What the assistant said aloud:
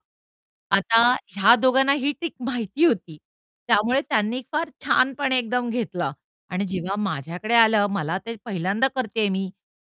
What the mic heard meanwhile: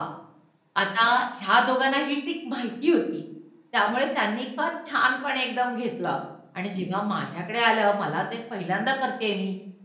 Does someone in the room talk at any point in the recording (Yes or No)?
No